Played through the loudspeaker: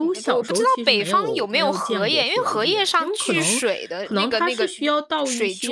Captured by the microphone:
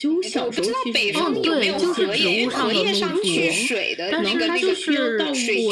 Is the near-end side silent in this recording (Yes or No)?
No